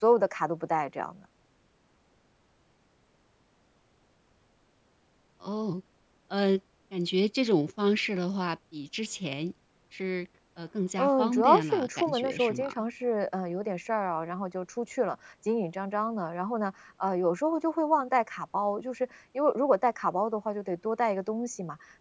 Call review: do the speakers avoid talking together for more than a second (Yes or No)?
No